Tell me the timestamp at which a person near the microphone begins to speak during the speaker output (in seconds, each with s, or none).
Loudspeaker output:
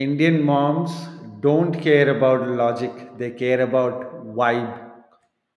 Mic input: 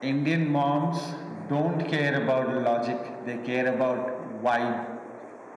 none